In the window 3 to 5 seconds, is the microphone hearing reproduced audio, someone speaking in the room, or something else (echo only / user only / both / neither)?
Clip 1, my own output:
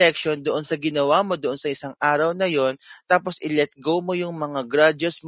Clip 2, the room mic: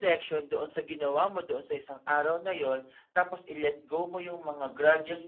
echo only